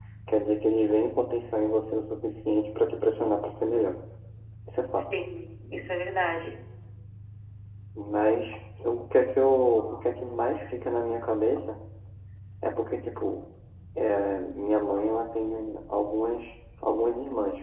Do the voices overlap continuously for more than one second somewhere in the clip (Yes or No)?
No